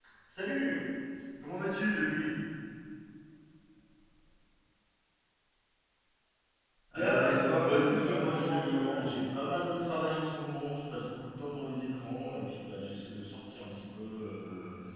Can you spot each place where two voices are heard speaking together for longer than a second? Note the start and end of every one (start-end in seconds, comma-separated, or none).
6.9-9.1